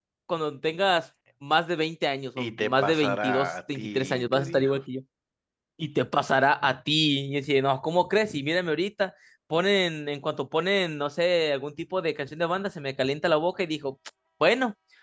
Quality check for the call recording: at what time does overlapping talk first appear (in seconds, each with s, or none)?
2.4 s